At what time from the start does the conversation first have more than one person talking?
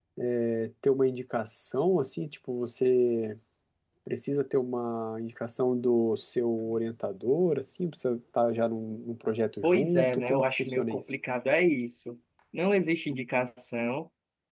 10 s

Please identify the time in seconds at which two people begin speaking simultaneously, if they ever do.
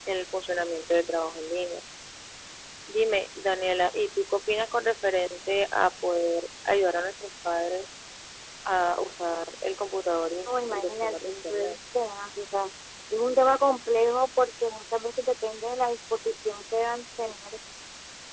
10 s

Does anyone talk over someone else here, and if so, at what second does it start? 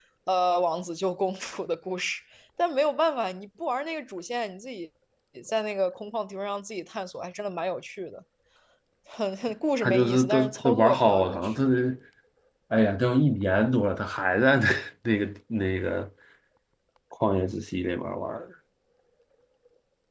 10 s

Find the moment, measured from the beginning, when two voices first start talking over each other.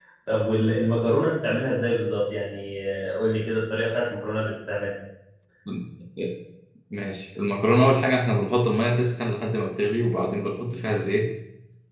none

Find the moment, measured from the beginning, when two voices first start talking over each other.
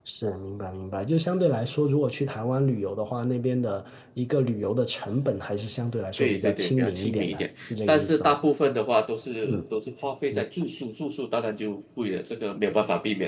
6 s

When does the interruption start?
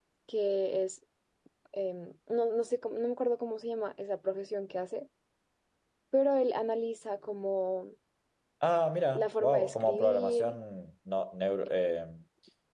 9 s

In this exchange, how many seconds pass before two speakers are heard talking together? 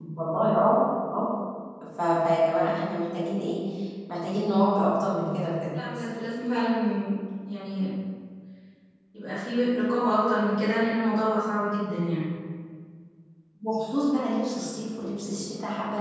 none

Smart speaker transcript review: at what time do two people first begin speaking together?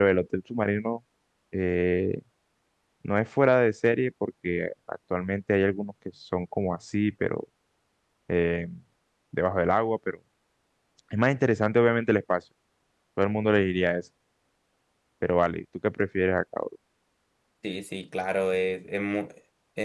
none

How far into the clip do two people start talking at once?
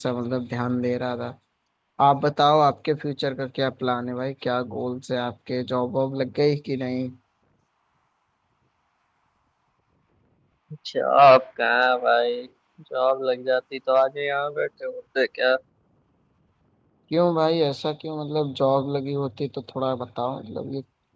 none

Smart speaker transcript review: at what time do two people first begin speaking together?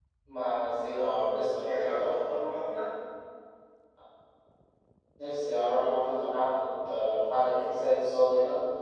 1 s

